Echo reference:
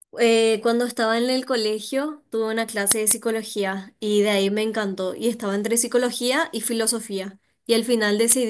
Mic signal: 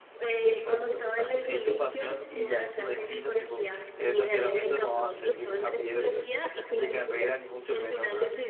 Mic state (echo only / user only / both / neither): both